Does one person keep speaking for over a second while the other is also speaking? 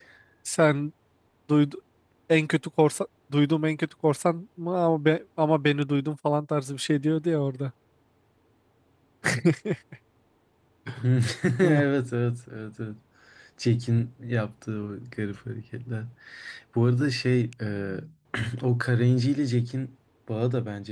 No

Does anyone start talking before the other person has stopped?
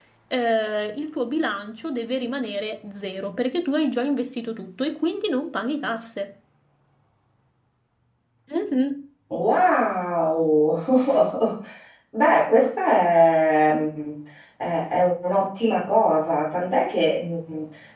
No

